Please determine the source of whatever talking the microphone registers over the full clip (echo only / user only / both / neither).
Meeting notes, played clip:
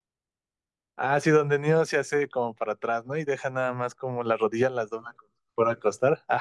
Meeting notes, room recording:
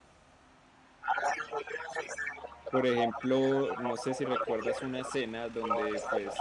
both